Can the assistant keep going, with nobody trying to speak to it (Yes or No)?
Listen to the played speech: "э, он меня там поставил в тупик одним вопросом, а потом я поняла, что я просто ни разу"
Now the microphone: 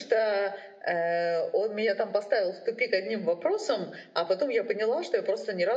Yes